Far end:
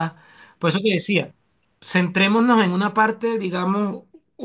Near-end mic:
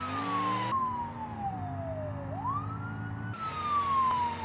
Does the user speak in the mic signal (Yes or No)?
No